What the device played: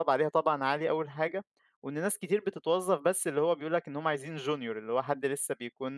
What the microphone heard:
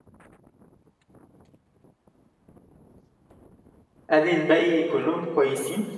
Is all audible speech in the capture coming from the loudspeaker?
No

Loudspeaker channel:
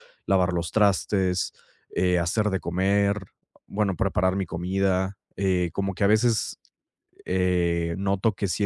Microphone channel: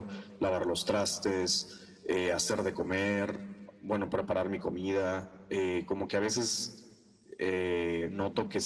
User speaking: No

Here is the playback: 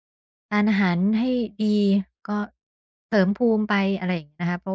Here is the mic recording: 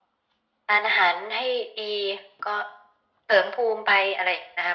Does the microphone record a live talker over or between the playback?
No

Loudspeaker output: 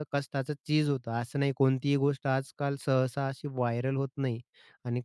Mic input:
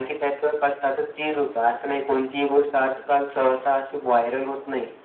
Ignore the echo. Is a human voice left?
Yes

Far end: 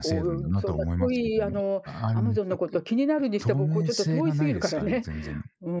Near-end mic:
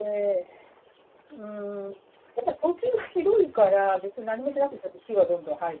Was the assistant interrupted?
Yes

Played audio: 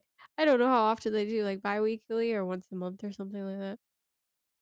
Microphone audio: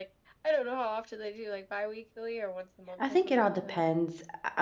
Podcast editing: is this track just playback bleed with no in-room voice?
No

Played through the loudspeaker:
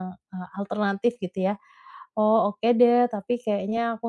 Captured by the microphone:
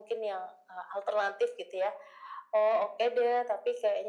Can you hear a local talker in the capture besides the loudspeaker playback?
No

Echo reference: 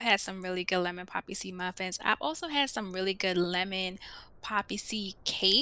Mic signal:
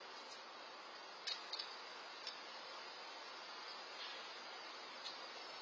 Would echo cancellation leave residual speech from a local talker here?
No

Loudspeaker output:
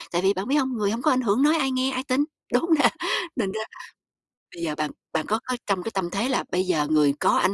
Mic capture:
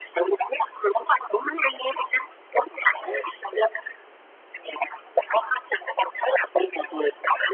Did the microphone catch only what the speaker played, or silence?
Yes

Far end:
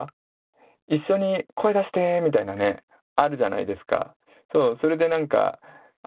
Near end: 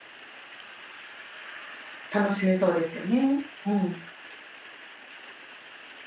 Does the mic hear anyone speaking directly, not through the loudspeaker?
Yes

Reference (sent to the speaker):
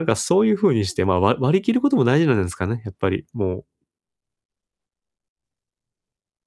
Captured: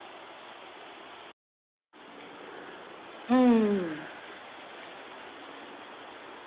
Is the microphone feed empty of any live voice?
No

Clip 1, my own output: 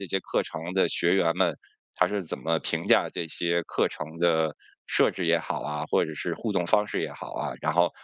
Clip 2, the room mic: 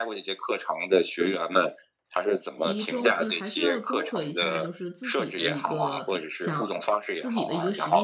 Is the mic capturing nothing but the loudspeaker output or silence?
No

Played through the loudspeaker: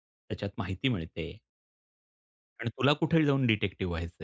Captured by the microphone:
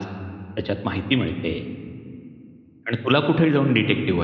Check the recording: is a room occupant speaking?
No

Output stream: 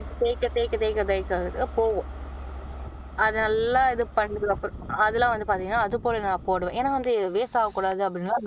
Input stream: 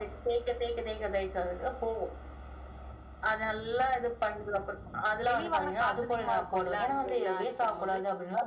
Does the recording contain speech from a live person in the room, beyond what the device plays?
Yes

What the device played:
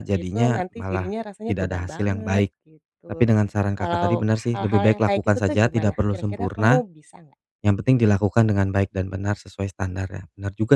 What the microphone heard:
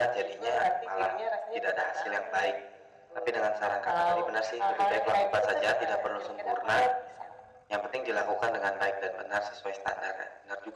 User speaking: No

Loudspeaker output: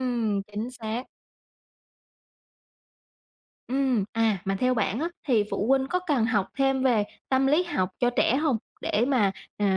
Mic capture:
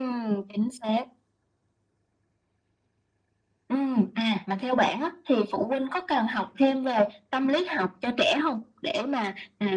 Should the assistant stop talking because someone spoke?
No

